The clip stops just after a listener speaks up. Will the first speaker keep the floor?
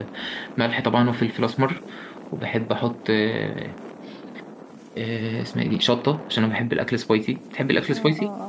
No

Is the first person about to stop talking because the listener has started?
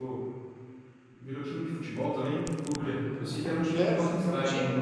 Yes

